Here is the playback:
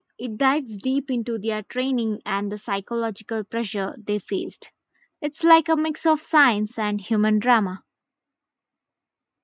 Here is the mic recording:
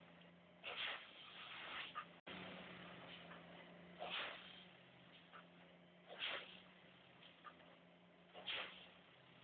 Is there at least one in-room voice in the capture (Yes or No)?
No